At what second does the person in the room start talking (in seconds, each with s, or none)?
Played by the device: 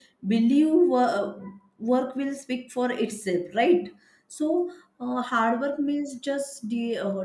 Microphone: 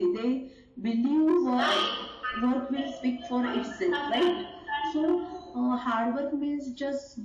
1.3 s